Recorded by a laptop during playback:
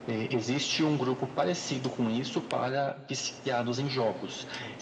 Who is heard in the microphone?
echo only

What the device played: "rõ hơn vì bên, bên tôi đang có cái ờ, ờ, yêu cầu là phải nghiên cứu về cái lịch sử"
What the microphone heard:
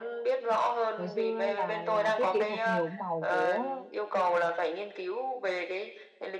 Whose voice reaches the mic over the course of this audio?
both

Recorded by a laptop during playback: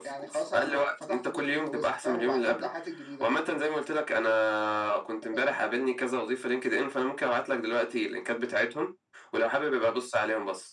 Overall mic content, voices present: echo only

